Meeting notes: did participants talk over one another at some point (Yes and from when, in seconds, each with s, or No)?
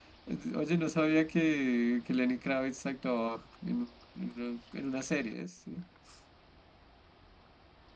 No